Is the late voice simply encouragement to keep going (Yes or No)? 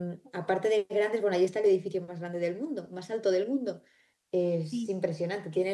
Yes